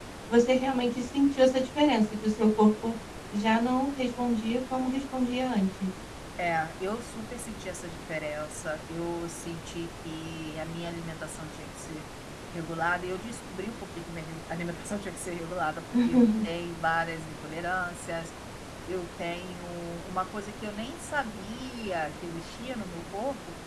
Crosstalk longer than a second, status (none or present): none